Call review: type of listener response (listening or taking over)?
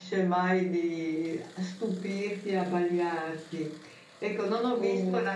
listening